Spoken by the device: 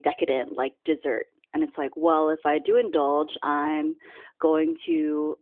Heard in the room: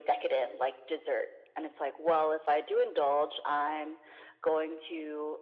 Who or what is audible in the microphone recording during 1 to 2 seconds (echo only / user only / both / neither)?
echo only